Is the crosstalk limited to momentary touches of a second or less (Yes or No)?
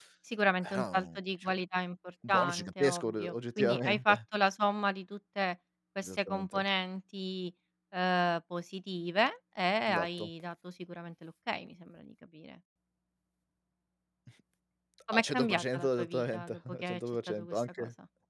No